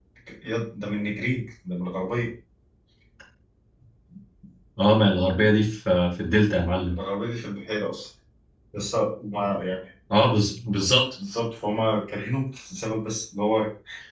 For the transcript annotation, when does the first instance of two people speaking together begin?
none

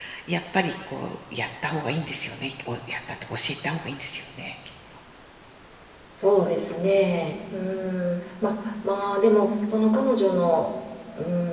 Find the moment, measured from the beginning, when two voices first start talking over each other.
none

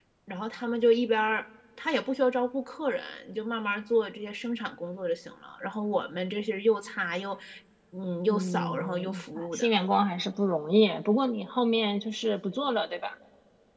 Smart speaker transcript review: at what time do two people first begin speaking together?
8.3 s

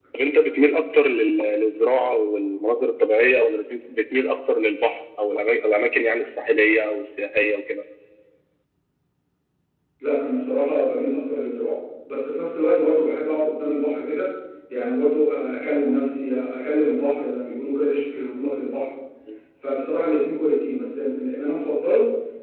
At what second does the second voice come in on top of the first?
none

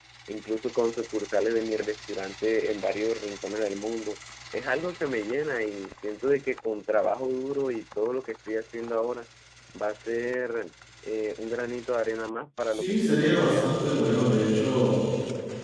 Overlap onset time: 12.8 s

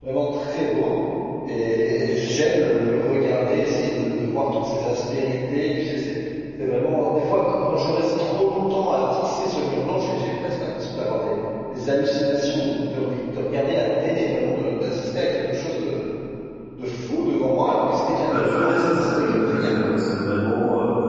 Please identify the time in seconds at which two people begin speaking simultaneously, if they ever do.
18.3 s

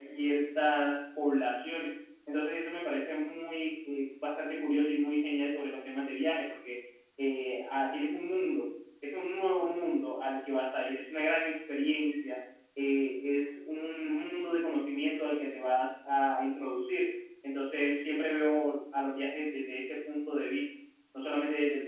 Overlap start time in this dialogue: none

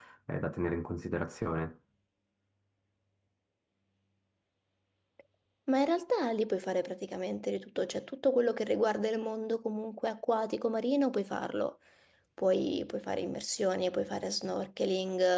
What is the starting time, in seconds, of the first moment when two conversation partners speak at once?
none

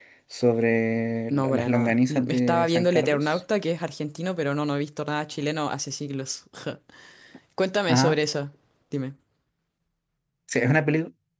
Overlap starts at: 1.3 s

